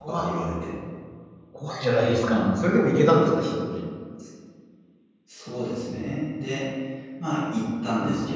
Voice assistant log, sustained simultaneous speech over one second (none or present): none